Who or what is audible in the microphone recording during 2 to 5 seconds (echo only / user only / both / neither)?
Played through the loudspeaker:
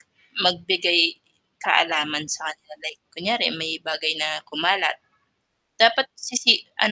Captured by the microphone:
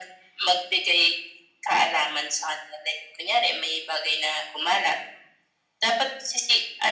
echo only